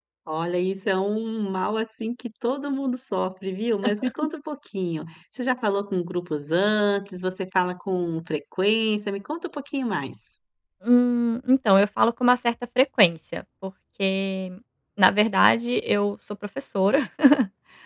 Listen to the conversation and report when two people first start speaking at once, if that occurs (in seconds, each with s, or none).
none